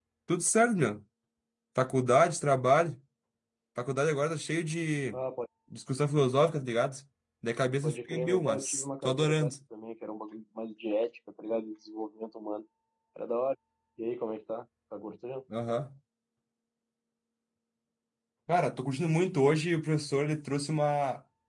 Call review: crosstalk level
present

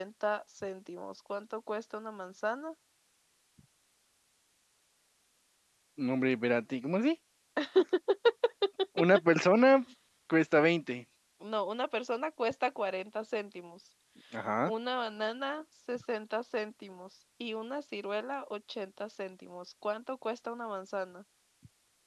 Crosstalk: none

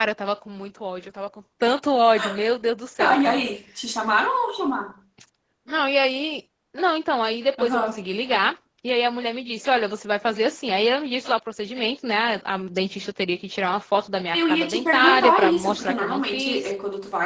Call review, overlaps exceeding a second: present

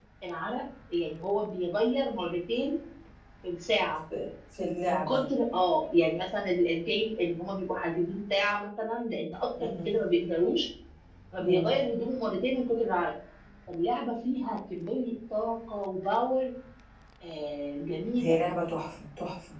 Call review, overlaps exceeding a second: none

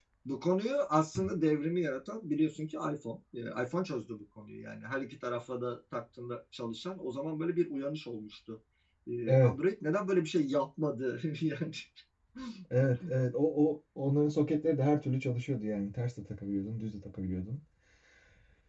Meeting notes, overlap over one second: none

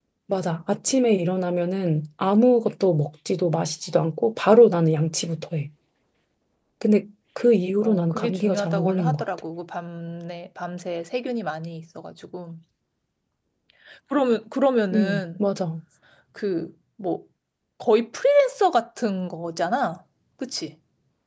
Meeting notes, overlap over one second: present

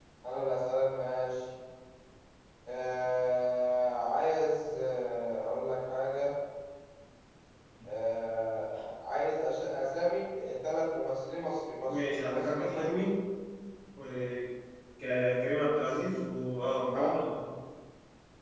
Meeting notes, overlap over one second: present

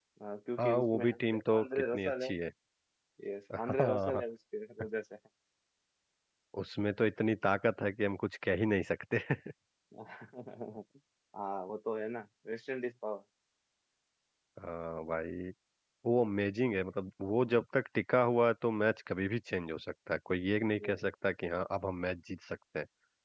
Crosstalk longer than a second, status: present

